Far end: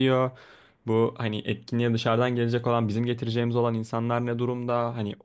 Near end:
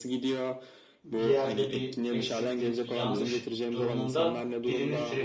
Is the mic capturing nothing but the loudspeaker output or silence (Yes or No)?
No